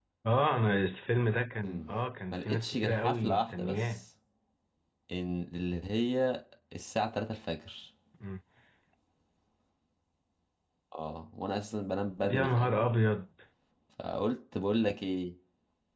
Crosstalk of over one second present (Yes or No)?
Yes